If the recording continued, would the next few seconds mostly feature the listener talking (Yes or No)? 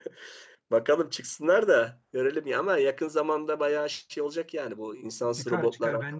Yes